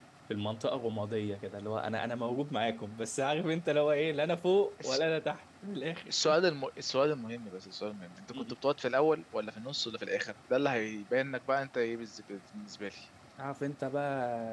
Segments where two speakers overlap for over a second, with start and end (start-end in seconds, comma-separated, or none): none